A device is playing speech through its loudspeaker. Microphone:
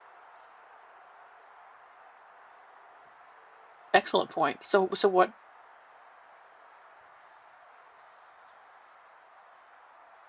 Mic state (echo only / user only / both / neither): user only